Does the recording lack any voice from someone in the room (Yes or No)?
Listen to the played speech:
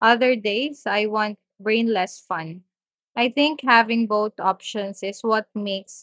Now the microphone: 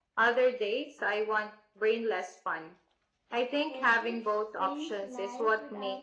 No